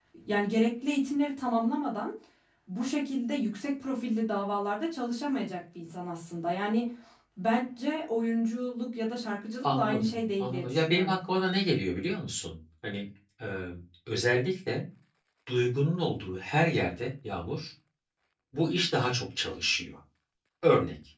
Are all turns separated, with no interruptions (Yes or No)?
No